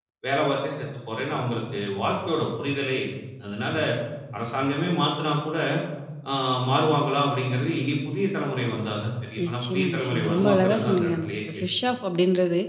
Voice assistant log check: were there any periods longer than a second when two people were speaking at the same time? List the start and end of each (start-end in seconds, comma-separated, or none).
9.4-11.7